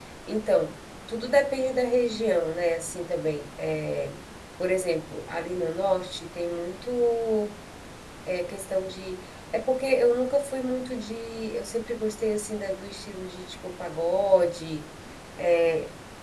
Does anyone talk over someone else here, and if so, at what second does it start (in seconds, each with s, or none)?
none